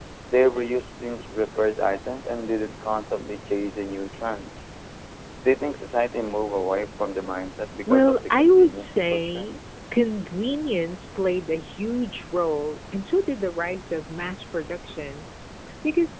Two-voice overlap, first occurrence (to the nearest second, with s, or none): 8 s